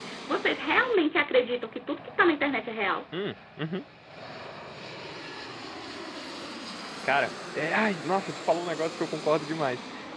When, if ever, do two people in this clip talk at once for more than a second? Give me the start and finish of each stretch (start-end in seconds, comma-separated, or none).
none